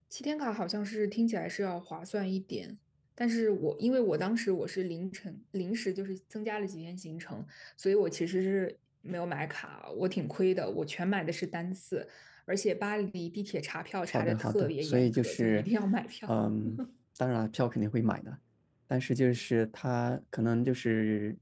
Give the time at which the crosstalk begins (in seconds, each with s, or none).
14.1 s